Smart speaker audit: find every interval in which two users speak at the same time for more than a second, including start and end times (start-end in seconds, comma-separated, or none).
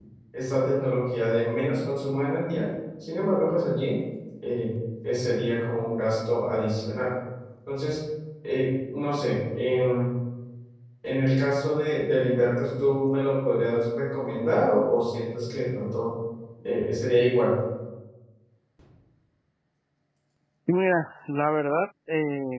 none